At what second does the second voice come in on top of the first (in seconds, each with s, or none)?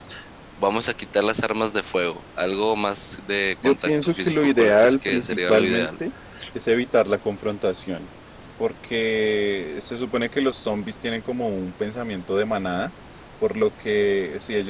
3.6 s